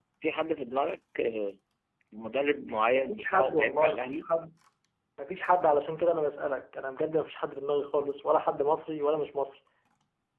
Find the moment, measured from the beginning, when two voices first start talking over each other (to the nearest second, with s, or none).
3 s